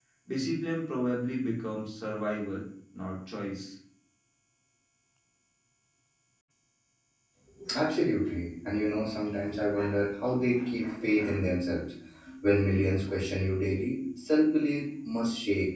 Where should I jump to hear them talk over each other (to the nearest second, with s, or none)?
none